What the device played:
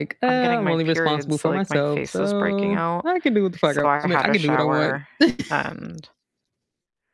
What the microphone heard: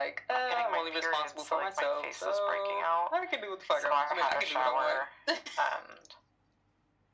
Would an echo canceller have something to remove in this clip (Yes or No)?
Yes